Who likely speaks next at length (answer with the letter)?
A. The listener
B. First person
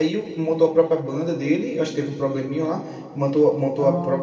B